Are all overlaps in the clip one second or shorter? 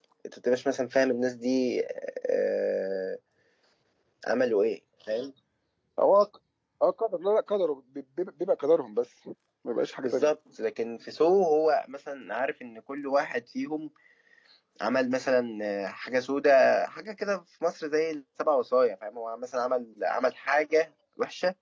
Yes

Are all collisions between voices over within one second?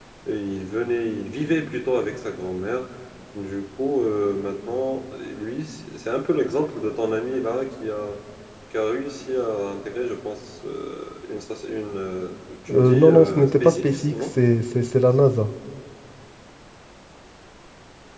No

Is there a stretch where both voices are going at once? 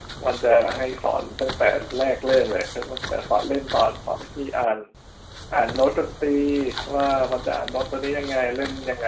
No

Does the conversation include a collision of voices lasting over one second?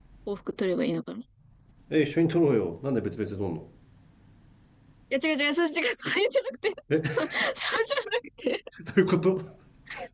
No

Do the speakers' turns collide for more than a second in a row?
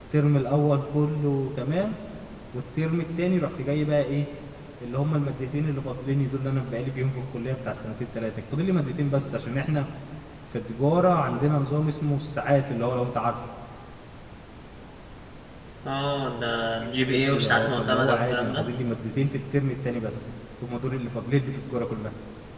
Yes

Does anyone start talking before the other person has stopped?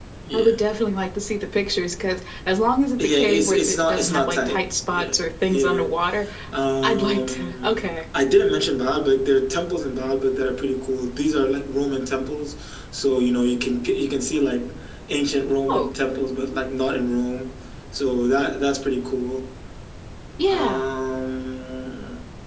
Yes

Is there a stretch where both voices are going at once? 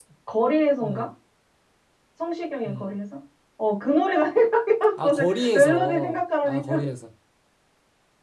Yes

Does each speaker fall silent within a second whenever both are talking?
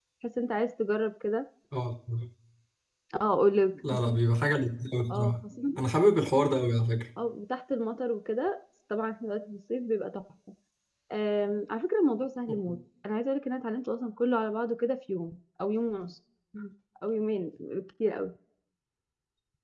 Yes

